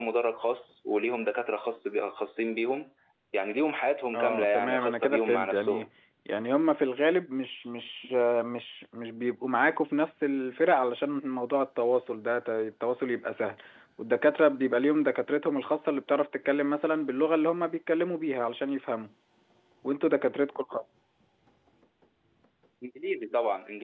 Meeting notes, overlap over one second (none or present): present